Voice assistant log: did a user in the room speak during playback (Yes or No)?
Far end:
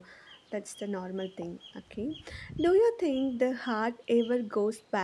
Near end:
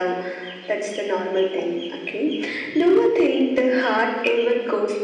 No